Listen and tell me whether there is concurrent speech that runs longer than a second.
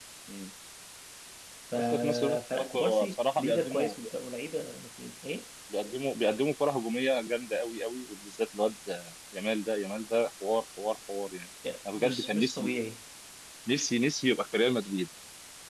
Yes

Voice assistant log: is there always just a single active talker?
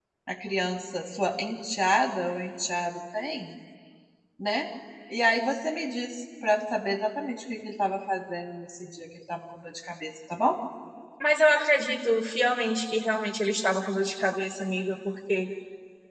Yes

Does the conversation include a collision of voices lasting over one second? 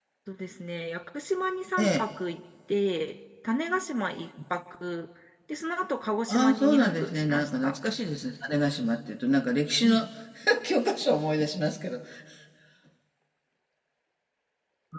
Yes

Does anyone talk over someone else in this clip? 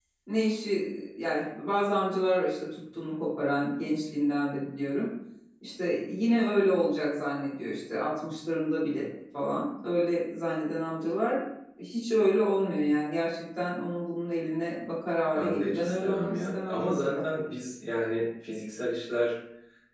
Yes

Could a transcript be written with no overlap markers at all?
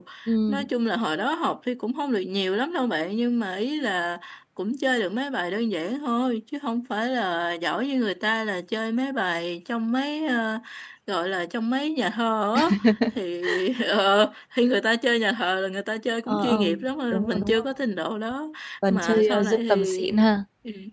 No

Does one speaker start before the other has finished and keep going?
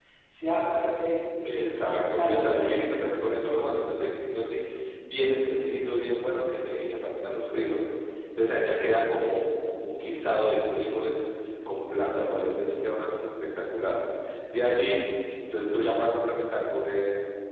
Yes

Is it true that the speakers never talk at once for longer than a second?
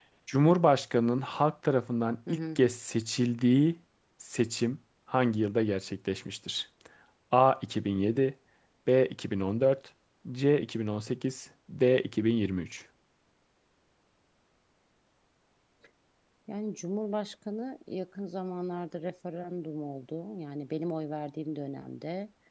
Yes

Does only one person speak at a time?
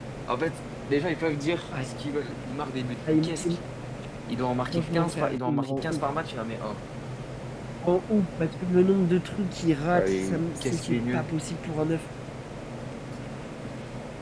No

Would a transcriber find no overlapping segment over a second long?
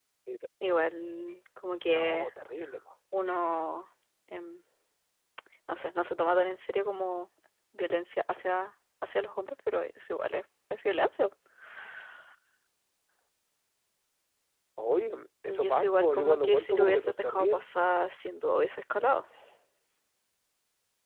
No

